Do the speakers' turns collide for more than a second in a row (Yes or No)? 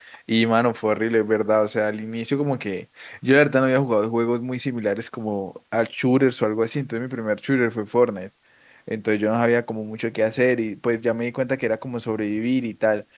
No